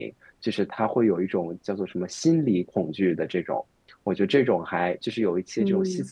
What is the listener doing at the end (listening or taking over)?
listening